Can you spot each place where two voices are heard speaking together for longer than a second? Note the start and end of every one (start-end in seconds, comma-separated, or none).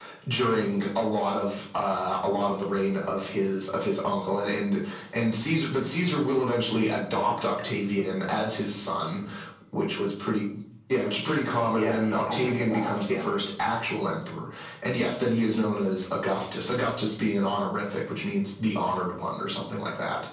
11.7-13.2